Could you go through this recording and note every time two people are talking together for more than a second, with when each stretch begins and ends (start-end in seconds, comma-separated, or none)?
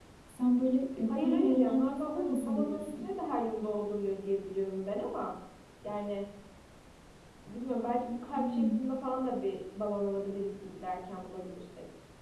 1.1-3.1